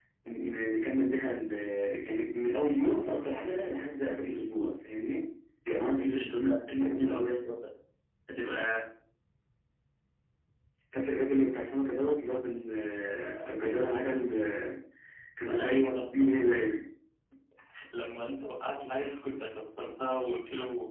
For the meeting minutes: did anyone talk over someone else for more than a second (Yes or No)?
Yes